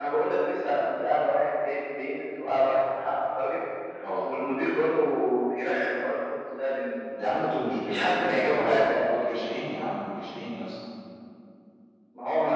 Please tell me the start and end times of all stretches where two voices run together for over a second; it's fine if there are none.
7.8-9.1

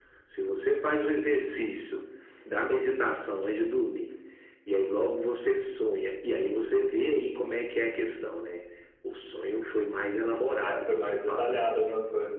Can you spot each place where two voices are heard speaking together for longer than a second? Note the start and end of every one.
10.3-11.6

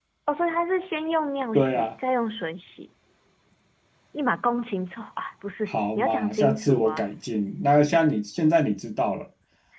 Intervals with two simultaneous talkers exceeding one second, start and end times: 5.7-7.0

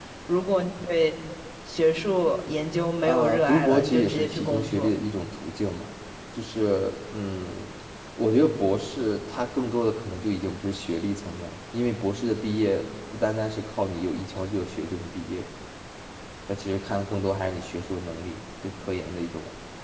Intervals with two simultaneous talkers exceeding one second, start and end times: 3.0-4.9

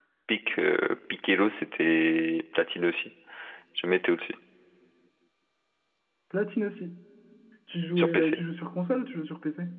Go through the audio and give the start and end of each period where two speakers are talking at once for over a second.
none

